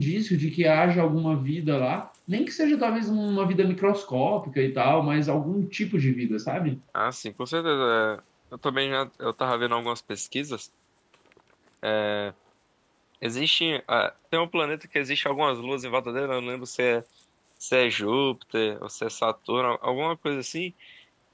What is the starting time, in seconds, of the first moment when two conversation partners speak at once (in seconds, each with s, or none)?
none